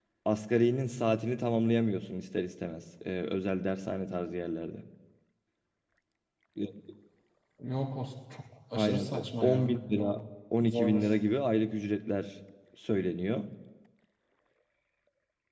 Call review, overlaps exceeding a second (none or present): present